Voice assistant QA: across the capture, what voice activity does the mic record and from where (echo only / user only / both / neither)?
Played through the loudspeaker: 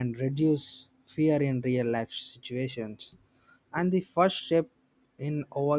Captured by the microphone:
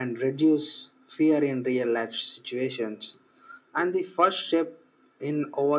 echo only